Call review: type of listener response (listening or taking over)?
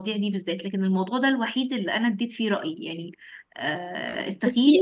listening